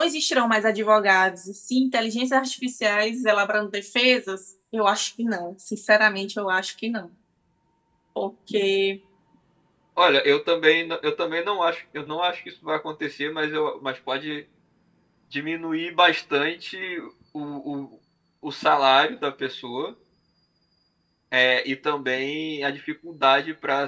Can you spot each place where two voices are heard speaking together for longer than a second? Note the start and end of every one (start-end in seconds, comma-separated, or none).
none